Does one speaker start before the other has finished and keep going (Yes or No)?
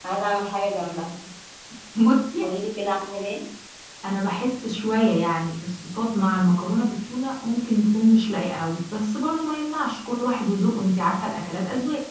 No